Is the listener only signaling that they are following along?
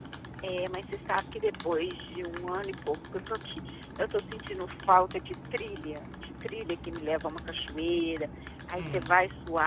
Yes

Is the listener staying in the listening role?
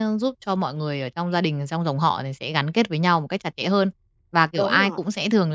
Yes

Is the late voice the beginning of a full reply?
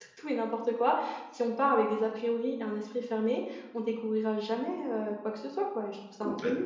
Yes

